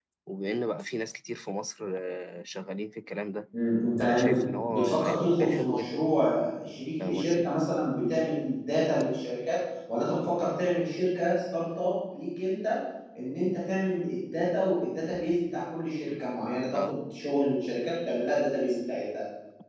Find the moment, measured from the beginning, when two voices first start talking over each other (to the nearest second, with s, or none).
4 s